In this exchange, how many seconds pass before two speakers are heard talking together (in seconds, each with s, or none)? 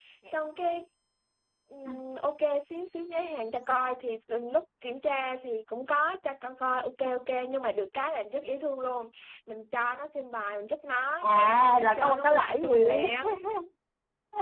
11.2 s